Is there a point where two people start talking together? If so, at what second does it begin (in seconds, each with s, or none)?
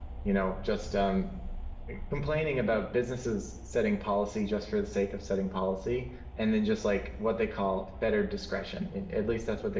none